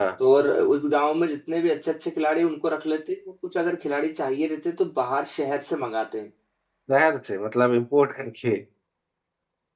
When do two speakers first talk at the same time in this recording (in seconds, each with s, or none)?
none